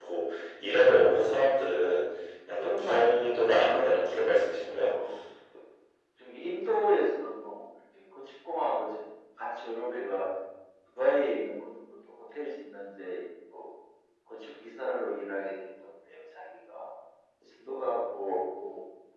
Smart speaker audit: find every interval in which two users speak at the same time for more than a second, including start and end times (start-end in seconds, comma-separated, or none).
2.6-4.3